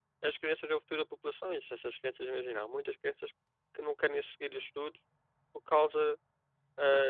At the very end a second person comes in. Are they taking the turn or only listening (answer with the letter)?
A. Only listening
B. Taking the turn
A